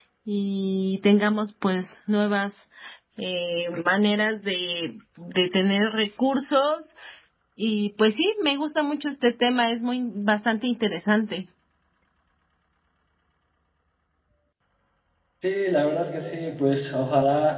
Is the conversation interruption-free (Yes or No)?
Yes